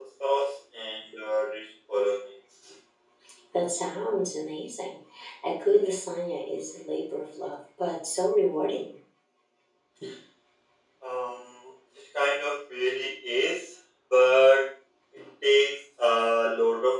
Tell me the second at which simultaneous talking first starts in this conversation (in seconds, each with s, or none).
none